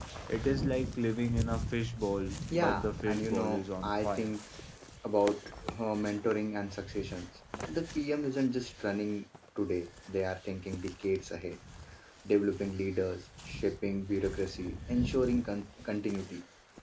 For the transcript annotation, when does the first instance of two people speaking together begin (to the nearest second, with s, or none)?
3 s